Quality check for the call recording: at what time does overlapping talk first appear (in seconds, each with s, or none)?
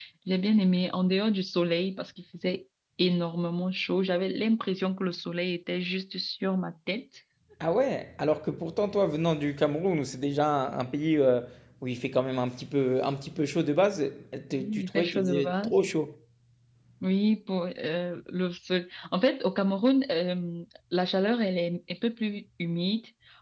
14.5 s